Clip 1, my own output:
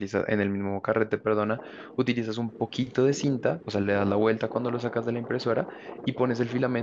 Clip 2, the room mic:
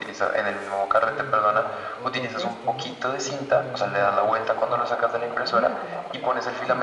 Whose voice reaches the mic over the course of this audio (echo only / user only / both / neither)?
both